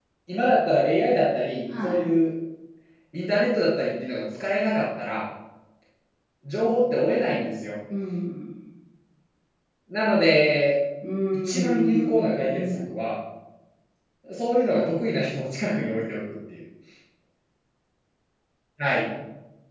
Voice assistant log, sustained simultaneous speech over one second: present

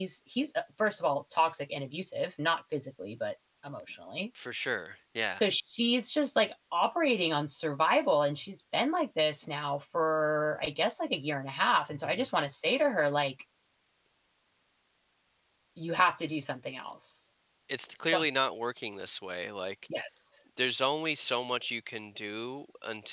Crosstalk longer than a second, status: none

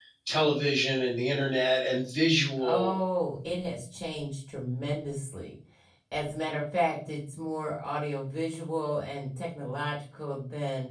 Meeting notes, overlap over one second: none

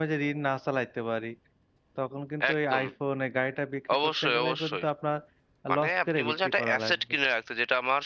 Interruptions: present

